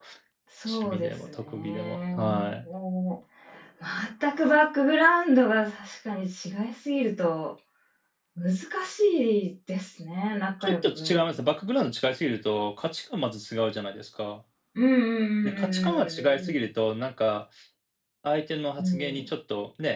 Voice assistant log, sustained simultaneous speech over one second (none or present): present